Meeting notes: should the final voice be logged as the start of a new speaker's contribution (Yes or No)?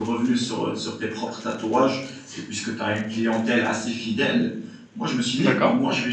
No